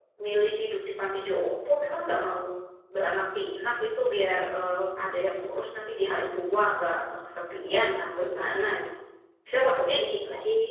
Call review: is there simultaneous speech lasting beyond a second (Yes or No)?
No